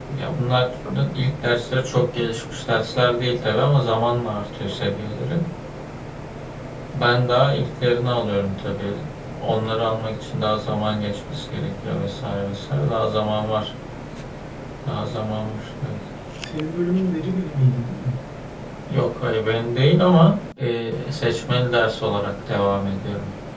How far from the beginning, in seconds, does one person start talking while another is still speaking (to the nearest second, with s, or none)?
none